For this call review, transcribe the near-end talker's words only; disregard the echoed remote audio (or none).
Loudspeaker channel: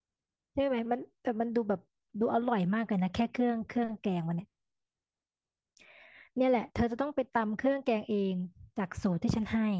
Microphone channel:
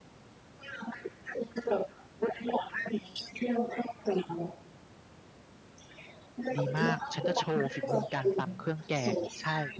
ดีมากฉันจะโชว์ฝีมือการตำเครื่องแกงใช่